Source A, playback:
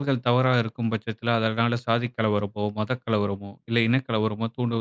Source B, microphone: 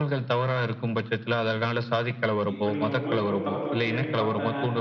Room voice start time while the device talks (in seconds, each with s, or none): 2.5 s